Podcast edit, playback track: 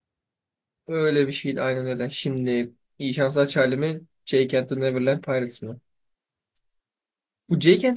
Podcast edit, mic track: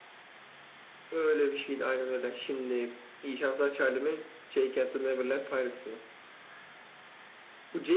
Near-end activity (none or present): none